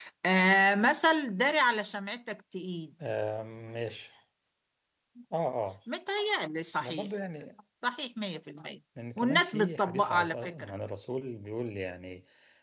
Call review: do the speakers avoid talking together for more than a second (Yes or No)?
No